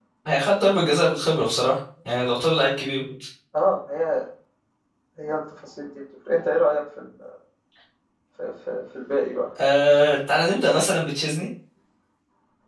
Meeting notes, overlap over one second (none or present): none